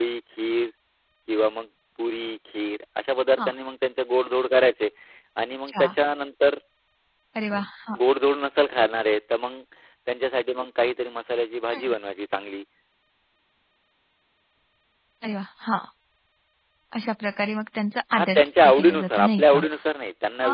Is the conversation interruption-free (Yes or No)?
No